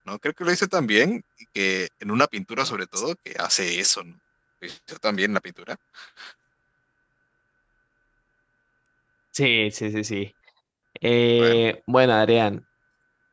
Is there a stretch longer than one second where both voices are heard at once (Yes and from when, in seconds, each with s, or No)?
No